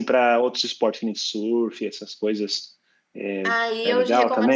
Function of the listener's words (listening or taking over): taking over